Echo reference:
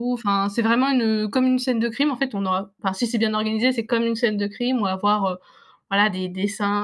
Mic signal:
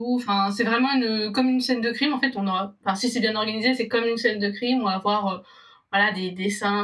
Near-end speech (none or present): none